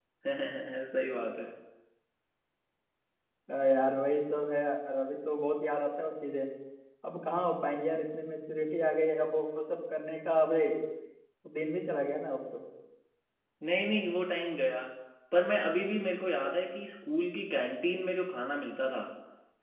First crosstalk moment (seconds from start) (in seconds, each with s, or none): none